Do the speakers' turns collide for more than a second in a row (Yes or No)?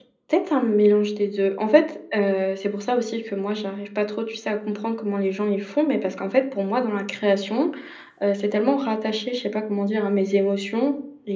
No